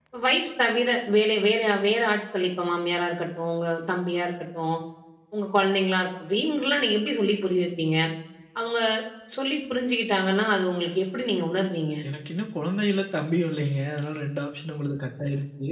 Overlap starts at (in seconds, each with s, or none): none